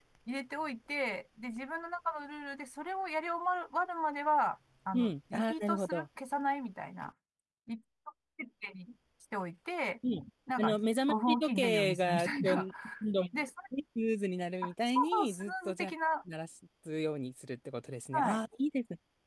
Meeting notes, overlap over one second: present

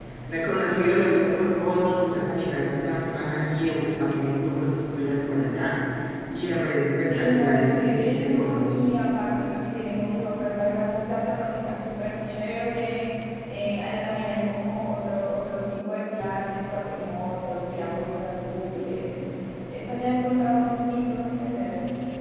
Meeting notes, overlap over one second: present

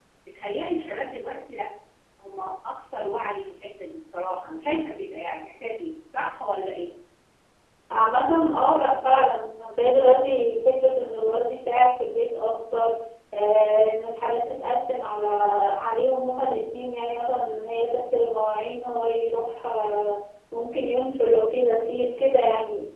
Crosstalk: none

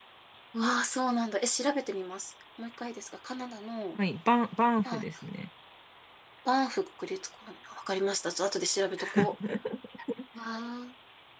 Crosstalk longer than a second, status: none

